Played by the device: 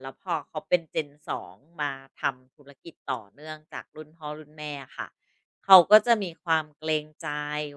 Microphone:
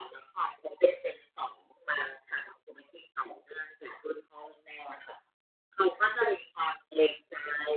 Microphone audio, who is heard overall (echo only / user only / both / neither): echo only